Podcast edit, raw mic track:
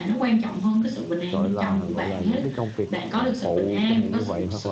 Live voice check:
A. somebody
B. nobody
A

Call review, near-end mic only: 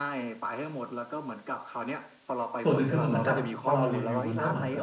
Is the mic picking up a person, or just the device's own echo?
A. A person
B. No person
A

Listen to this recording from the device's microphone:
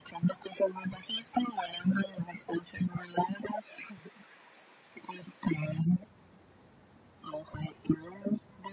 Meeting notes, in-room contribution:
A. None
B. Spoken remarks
A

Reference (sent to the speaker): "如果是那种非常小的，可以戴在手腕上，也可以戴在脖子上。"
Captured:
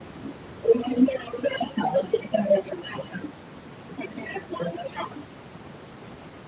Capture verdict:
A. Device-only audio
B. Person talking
A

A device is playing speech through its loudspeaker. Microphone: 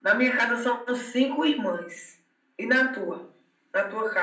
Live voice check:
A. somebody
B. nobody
B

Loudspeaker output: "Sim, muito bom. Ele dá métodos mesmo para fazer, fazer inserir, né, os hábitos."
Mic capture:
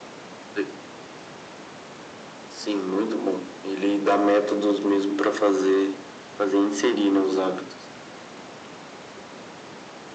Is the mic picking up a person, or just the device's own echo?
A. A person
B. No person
B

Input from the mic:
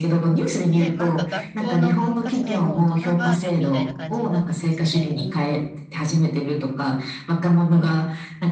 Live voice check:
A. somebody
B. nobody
A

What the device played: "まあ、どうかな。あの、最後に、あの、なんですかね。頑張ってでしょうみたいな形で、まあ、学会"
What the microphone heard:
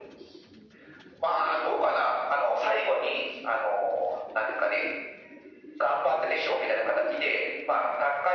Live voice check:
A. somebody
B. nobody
B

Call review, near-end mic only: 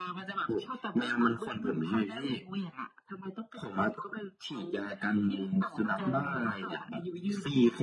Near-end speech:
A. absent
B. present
B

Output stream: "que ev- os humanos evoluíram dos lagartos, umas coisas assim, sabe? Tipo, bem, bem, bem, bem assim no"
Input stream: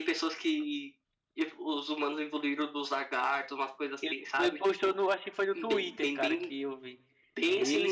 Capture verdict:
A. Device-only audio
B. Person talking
B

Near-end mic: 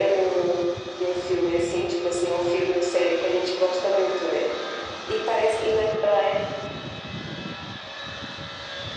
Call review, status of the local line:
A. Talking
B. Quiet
B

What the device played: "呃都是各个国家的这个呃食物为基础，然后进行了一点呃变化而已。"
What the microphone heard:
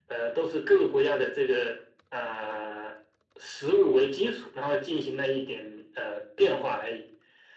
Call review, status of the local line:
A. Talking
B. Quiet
B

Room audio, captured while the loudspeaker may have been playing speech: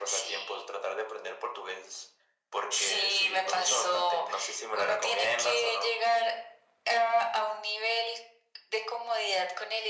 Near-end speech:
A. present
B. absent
B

